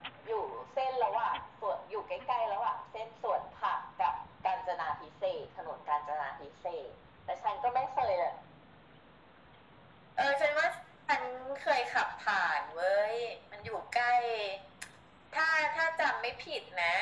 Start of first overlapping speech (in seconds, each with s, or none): none